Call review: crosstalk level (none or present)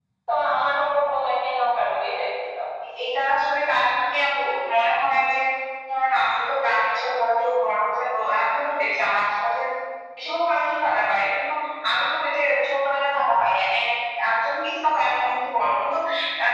none